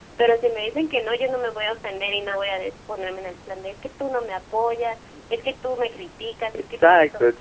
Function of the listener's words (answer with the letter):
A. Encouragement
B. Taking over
B